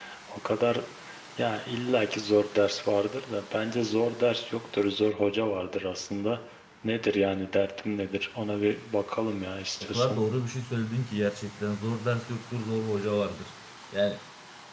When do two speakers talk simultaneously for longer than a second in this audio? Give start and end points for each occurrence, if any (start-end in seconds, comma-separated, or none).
none